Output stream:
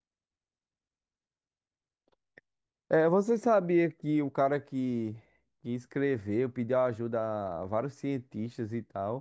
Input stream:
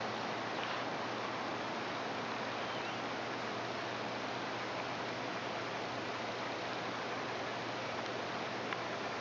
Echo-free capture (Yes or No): Yes